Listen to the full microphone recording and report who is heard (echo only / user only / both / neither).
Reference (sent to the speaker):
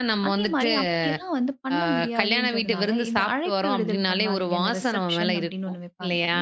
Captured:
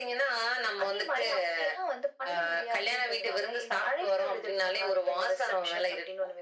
echo only